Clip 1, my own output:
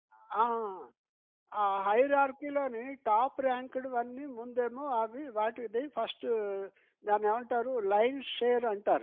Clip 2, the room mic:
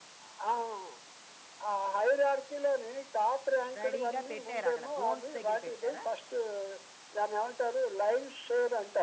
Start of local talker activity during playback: 4 s

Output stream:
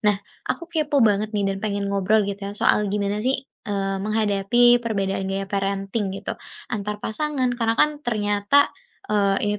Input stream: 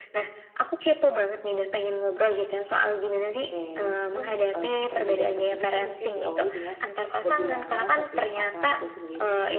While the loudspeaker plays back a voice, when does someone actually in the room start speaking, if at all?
3 s

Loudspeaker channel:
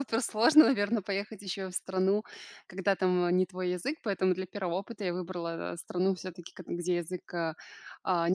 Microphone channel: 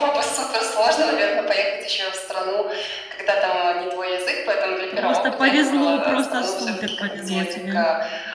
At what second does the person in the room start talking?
5 s

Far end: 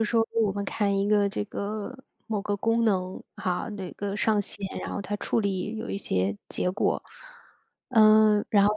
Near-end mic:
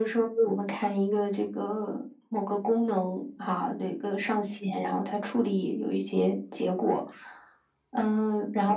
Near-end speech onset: none

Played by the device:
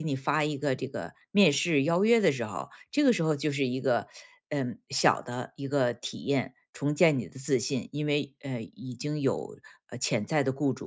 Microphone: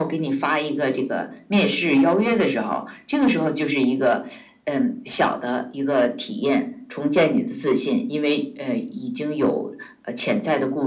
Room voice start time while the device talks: none

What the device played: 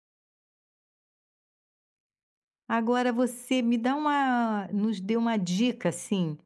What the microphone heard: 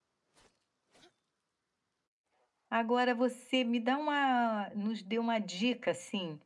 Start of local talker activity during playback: none

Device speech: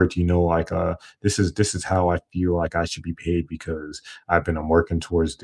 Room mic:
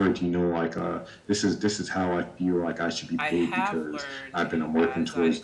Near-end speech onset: 3 s

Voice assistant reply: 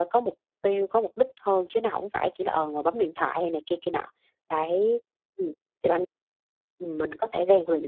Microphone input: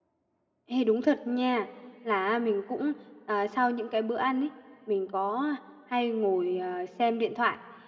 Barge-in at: 1 s

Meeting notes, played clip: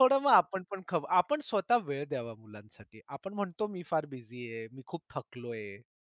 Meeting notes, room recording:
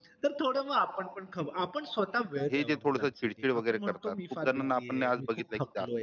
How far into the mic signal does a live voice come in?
3 s

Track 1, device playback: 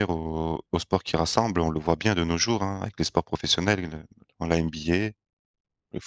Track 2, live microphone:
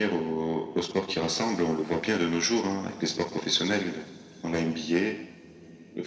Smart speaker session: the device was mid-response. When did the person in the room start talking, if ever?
none

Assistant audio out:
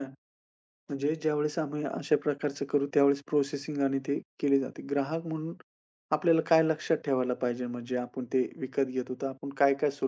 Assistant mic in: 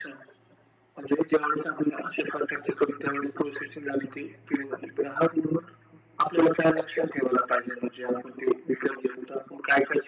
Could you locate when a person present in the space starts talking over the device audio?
none

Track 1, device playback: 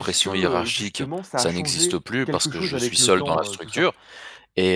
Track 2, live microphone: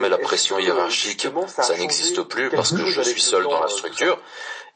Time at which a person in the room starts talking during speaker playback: 3 s

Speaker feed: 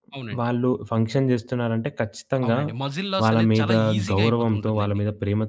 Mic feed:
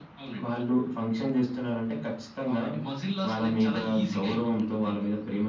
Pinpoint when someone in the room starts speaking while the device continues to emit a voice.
none

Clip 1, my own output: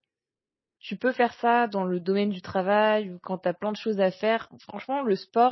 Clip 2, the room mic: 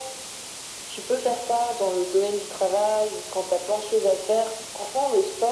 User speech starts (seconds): none

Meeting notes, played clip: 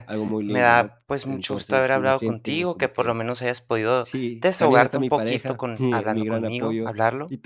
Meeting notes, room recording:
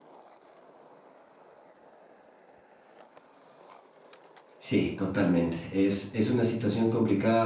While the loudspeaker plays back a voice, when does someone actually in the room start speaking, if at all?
5 s

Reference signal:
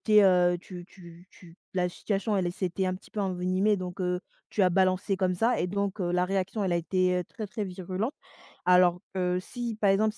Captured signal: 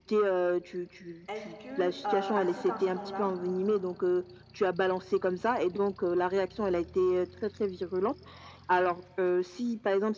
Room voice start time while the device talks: 1 s

